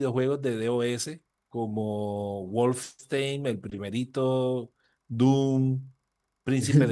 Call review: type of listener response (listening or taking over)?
listening